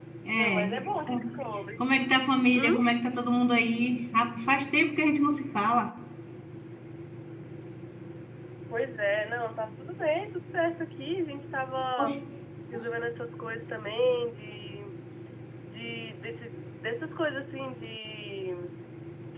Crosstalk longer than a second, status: none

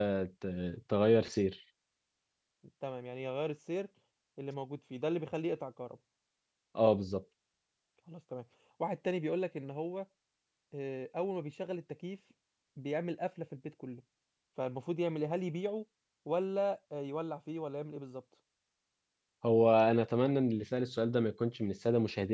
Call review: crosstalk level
none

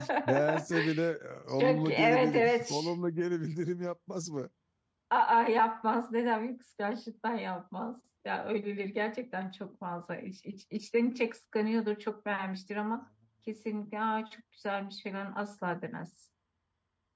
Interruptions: present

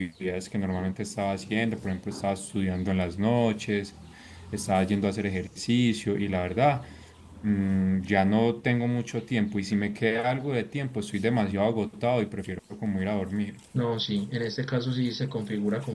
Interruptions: none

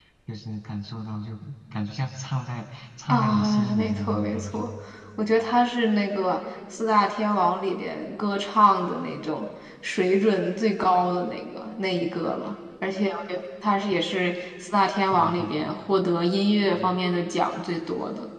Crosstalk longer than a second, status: present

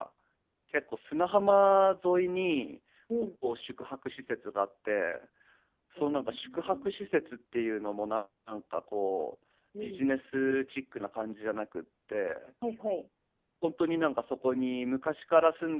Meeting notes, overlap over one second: present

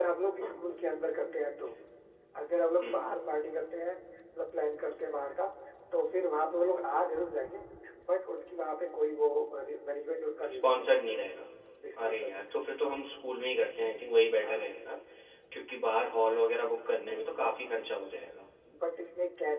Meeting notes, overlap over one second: none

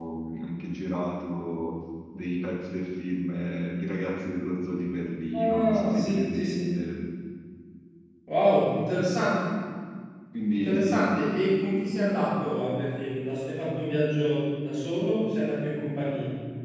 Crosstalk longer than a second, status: present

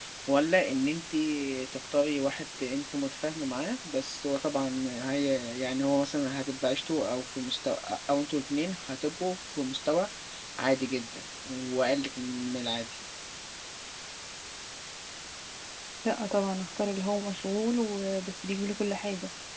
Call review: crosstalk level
none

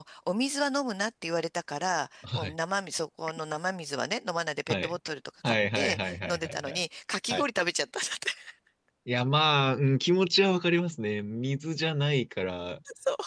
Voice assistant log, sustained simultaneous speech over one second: present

